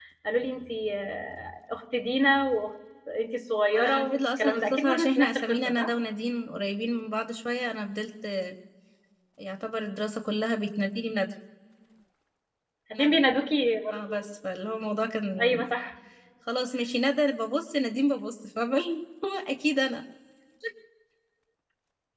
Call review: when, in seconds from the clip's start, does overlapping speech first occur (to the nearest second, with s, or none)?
4 s